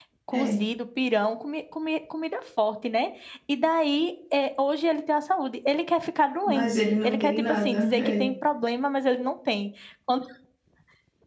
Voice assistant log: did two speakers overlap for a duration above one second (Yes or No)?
Yes